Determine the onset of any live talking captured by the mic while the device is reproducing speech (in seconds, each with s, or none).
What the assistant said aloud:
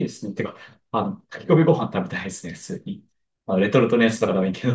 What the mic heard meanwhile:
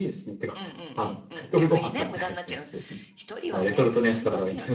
0.5 s